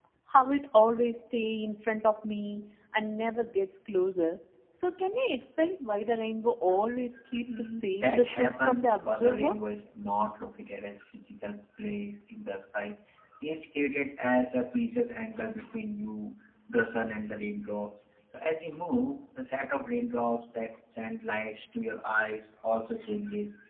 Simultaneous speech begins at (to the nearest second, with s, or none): 8 s